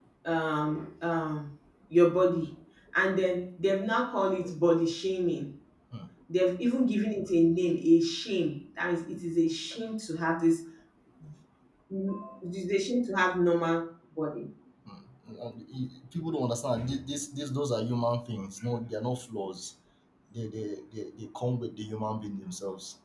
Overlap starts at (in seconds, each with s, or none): none